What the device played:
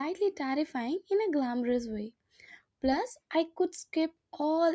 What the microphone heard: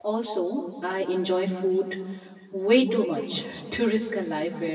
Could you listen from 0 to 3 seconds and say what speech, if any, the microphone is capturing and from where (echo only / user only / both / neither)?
user only